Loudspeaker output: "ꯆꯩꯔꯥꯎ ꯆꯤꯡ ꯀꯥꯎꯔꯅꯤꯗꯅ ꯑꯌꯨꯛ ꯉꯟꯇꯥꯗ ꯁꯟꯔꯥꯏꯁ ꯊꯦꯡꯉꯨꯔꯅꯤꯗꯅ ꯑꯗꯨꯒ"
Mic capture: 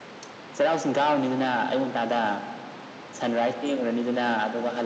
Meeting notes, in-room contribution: none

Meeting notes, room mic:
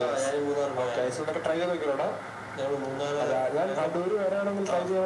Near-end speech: none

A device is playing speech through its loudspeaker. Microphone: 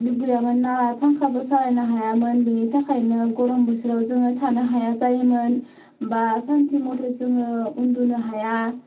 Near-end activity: present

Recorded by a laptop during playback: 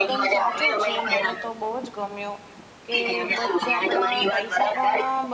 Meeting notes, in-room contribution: present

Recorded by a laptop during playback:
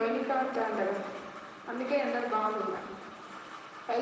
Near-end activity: none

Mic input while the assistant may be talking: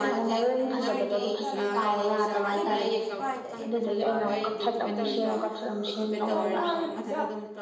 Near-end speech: present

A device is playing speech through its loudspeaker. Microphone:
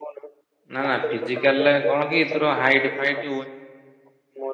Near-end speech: present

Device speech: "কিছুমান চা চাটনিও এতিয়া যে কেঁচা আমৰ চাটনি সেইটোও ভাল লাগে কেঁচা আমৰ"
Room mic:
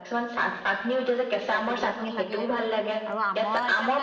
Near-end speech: present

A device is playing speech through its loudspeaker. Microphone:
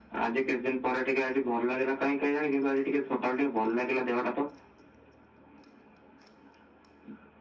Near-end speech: none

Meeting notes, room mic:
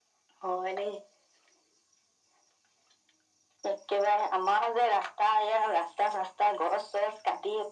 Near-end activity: none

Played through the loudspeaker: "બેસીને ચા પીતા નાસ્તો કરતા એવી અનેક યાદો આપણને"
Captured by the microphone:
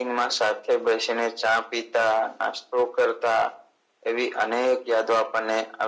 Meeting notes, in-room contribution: none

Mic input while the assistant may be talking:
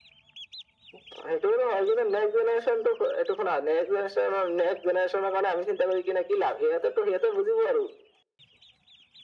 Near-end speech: none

